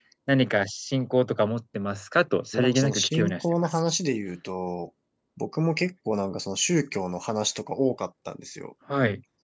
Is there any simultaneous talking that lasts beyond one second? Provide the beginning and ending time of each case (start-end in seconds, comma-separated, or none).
2.5-3.8